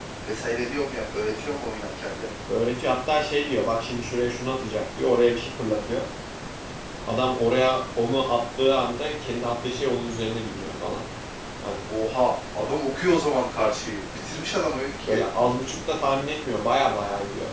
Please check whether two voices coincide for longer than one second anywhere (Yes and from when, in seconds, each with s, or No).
No